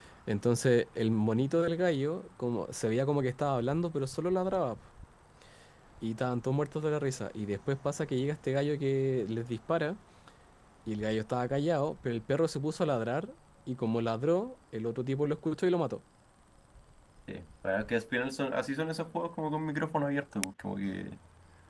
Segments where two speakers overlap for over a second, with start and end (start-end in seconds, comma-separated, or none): none